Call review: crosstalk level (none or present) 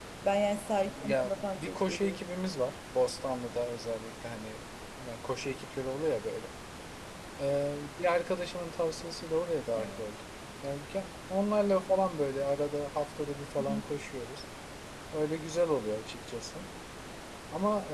present